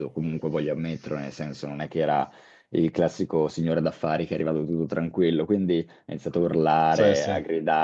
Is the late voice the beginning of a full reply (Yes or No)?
No